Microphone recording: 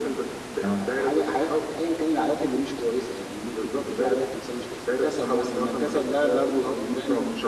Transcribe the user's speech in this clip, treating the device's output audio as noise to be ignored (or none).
تمام